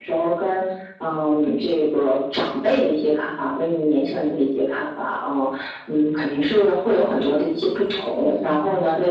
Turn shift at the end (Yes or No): No